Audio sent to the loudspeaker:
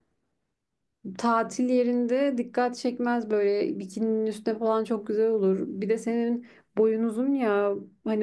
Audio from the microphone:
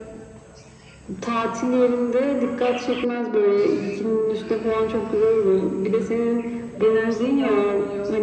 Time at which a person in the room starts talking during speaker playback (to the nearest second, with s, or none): 7 s